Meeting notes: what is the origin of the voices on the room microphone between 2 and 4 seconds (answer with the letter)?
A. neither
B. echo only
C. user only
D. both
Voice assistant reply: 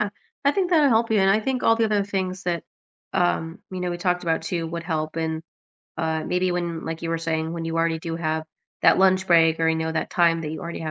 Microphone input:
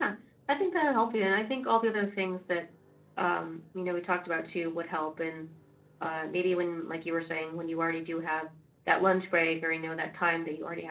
B